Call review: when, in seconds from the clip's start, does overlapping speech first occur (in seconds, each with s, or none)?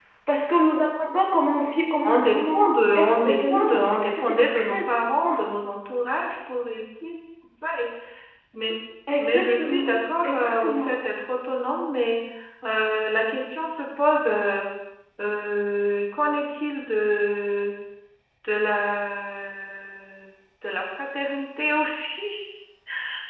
2.0 s